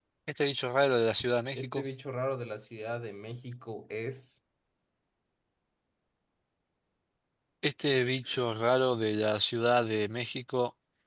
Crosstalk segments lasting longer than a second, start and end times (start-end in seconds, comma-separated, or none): none